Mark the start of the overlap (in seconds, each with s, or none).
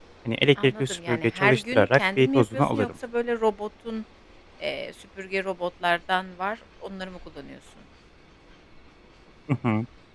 0.6 s